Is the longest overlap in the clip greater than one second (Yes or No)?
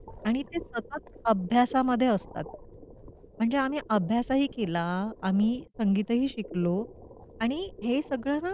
No